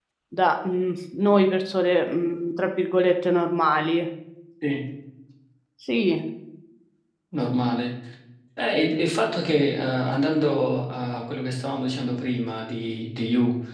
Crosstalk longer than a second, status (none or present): none